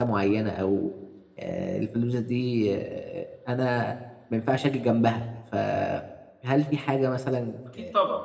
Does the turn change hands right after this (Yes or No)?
No